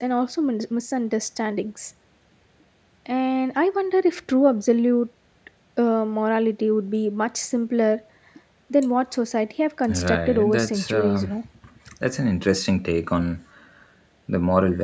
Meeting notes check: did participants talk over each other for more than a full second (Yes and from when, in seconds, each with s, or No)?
Yes, from 9.9 s